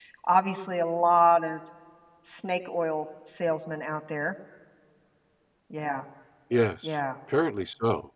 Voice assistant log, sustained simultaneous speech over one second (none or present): none